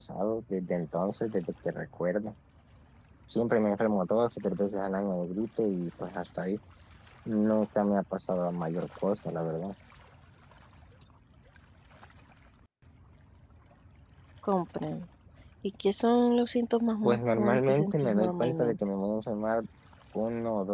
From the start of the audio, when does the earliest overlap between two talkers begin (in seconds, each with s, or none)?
17.0 s